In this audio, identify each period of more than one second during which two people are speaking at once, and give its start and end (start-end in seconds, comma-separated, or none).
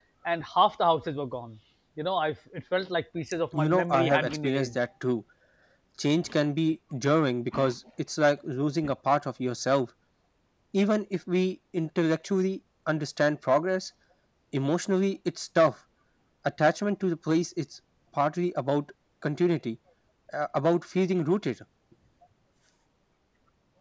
3.5-4.8